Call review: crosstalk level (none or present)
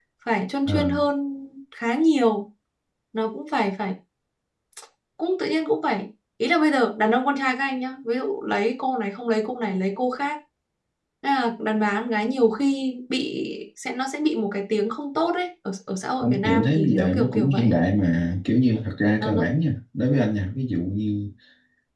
present